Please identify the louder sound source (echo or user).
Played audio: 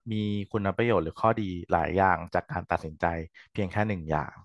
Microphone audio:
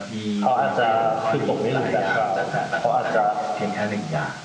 user